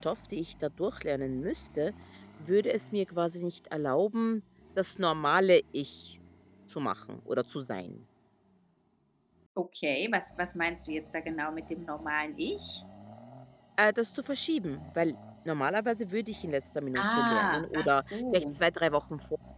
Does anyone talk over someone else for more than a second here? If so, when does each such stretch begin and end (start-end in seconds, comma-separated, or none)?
17.0-18.6